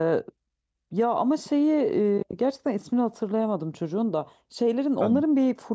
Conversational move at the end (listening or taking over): listening